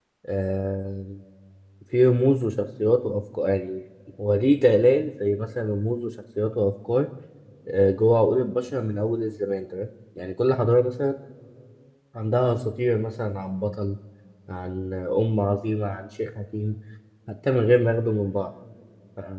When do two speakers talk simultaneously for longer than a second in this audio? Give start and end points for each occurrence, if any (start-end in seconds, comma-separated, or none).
none